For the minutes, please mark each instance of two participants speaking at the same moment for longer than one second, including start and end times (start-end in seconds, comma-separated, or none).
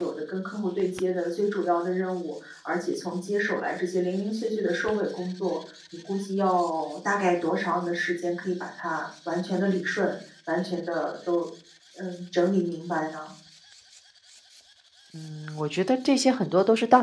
none